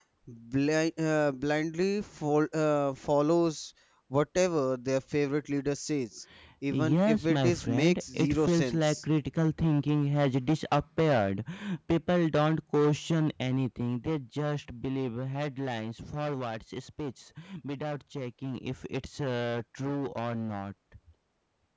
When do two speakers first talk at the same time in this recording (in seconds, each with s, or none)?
6.7 s